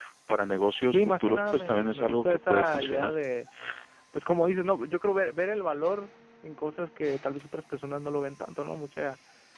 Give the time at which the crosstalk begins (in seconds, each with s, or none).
0.9 s